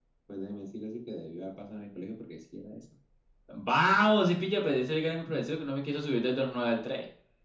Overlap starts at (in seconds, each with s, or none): none